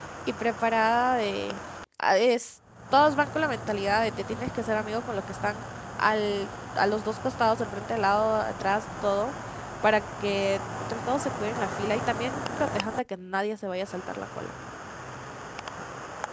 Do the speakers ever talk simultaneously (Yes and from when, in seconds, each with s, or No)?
No